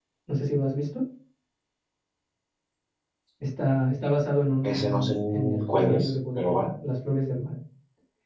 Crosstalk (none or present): present